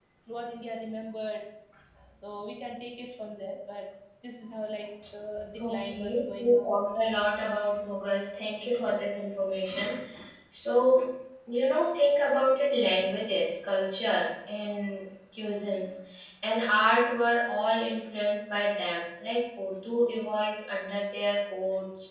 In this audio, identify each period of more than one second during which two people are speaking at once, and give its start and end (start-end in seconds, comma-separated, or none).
5.6-6.8